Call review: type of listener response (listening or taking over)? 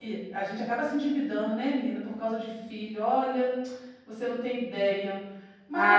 listening